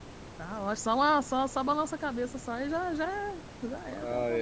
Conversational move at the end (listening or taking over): taking over